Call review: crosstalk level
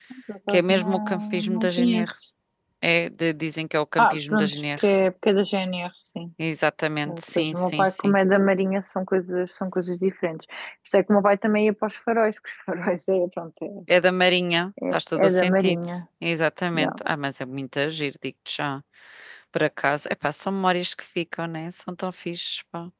present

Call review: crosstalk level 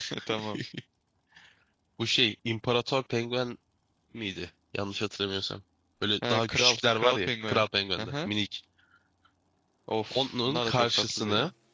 present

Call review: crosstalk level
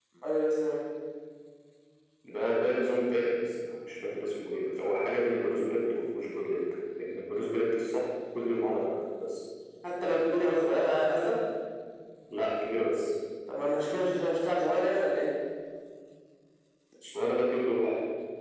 none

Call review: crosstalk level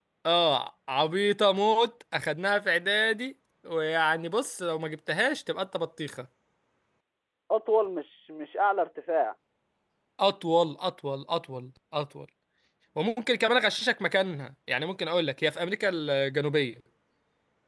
none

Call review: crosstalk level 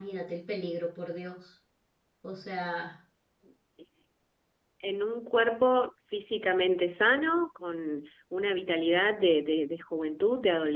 none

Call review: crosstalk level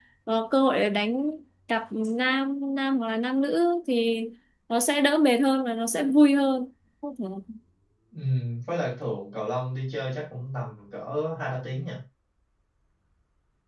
none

